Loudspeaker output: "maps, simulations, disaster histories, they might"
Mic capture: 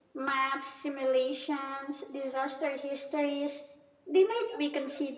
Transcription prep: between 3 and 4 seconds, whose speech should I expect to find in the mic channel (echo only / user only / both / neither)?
echo only